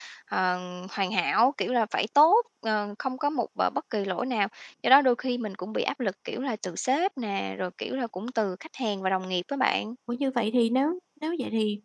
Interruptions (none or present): none